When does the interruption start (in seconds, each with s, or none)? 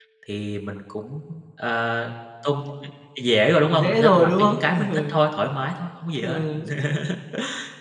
3.7 s